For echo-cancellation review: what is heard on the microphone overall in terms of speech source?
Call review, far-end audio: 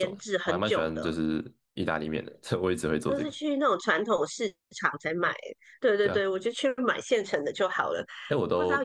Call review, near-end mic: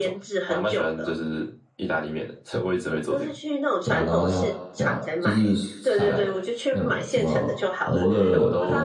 both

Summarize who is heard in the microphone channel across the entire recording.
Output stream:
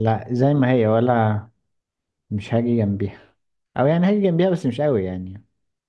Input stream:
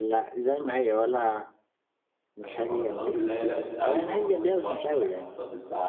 both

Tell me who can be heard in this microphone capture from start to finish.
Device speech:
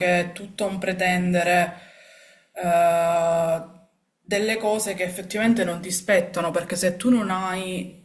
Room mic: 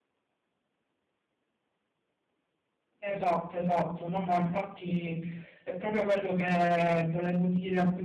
user only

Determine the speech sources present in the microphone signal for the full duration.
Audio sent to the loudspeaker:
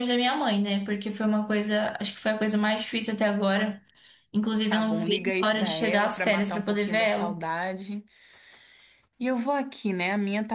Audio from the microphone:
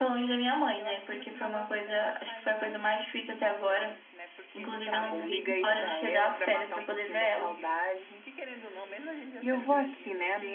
both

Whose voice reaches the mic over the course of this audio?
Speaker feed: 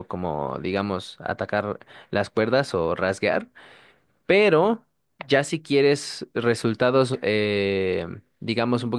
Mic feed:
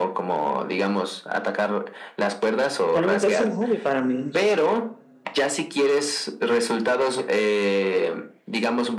both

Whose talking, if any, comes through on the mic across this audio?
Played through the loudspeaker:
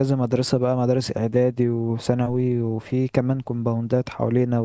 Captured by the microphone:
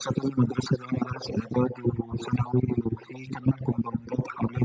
echo only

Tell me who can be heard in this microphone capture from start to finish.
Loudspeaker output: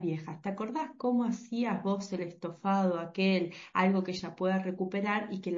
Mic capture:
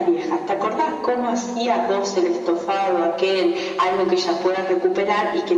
echo only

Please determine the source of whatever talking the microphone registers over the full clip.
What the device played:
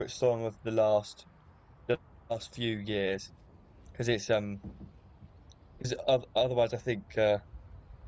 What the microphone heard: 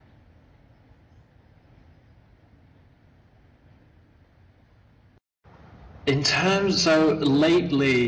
user only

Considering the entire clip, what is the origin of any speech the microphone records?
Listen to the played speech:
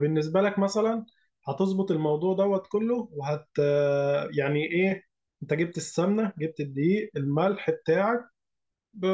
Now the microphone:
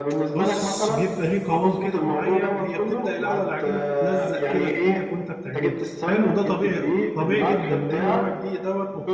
both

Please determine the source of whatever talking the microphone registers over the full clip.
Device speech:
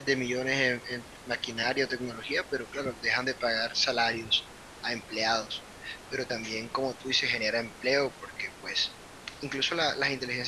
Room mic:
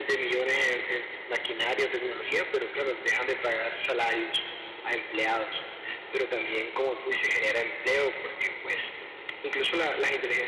echo only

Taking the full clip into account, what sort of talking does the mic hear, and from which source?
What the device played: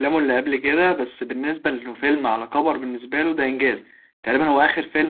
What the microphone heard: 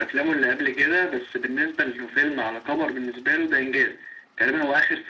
echo only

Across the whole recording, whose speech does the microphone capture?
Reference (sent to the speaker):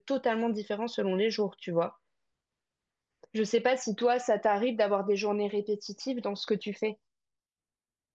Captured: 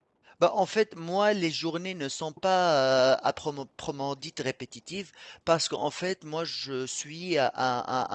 user only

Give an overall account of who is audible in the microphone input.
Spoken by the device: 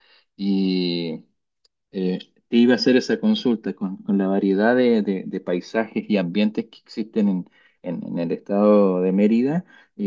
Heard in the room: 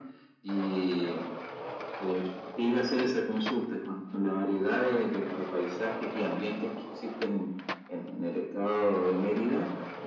echo only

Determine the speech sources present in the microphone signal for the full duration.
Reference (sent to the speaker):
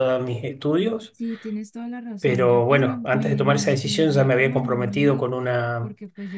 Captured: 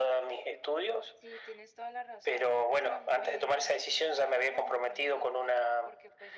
echo only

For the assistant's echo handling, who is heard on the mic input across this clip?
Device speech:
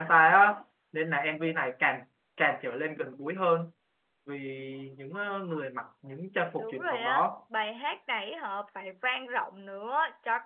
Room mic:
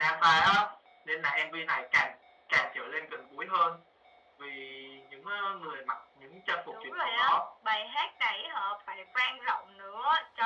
echo only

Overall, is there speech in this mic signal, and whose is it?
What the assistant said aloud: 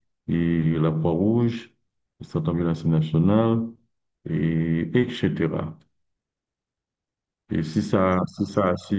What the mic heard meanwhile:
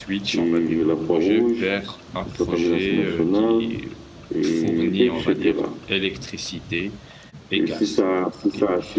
both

